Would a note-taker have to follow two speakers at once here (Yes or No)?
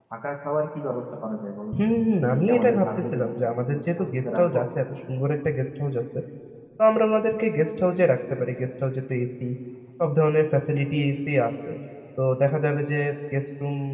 Yes